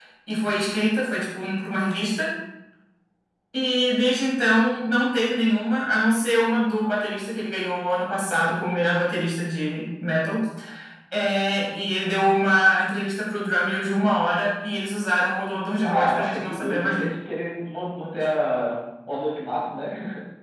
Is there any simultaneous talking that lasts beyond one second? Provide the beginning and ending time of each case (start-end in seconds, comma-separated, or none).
15.8-17.1